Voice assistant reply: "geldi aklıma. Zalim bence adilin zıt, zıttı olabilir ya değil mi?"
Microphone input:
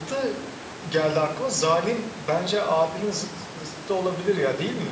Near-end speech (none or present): none